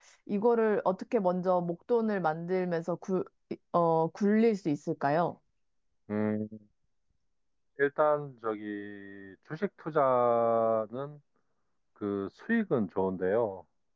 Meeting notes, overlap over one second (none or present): none